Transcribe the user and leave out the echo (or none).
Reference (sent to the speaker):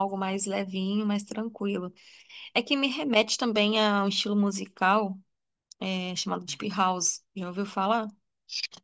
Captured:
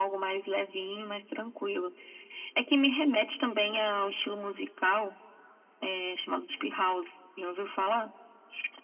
none